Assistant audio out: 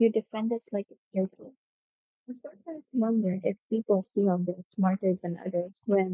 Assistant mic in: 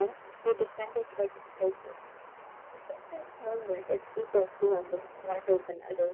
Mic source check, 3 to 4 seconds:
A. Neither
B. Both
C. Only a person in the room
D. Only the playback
D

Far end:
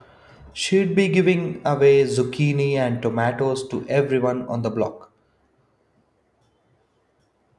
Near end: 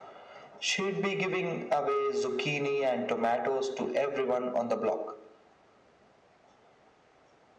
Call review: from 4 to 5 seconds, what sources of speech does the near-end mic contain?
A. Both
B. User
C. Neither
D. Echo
D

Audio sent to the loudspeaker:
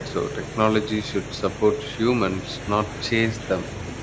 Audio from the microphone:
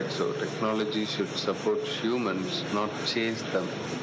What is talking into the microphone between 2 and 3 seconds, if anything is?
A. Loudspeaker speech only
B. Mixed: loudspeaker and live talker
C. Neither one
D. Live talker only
B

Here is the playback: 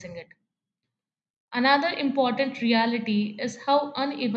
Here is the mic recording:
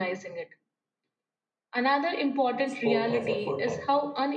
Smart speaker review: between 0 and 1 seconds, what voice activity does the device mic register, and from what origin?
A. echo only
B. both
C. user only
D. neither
A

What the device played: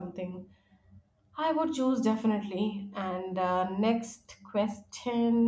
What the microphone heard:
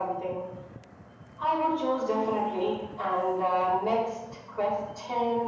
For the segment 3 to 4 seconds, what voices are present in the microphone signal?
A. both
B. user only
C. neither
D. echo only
D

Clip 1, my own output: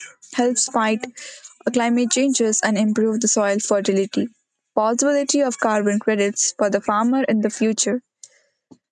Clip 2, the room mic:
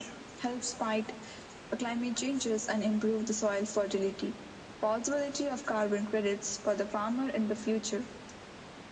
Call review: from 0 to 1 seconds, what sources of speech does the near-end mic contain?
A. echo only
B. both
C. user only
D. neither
A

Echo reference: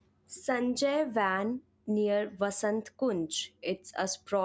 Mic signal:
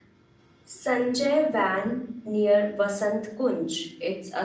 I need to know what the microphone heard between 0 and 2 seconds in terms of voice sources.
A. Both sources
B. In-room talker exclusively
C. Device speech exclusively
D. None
C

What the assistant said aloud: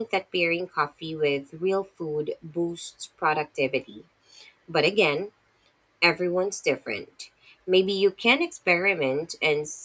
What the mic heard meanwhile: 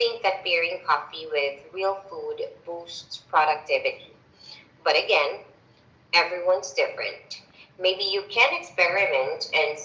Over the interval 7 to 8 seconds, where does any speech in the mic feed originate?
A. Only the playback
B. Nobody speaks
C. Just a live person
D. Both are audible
A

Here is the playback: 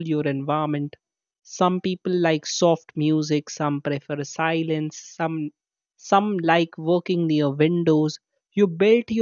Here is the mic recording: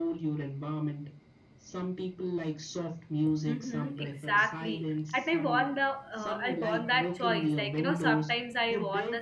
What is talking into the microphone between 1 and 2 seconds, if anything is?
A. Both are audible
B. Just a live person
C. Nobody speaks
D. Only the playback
D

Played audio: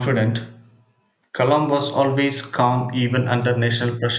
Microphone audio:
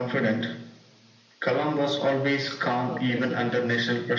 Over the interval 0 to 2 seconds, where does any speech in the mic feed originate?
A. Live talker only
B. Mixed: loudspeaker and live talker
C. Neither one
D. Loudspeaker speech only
D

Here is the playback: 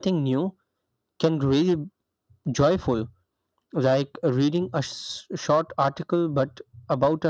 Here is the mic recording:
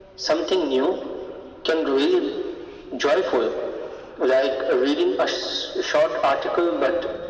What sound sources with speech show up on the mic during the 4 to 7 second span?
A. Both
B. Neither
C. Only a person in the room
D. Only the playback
D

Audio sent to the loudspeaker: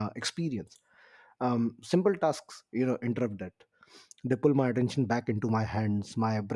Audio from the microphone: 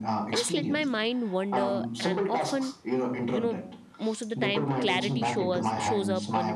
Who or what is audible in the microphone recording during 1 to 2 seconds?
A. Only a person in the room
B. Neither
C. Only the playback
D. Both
D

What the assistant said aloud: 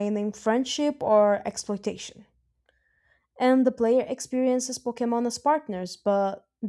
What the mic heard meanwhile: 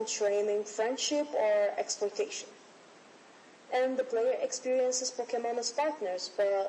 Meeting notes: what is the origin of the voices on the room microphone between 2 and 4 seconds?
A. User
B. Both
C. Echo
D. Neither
C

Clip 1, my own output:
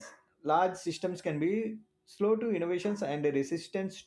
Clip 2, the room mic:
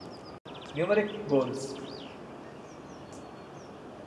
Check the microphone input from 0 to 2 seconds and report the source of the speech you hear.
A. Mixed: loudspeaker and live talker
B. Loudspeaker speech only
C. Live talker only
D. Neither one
C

